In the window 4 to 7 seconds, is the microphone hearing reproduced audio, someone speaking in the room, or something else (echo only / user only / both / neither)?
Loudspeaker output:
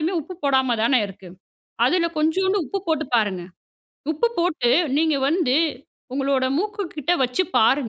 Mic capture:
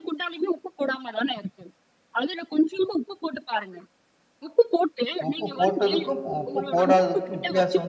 both